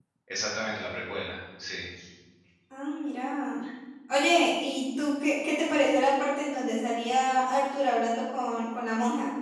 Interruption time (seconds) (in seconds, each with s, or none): none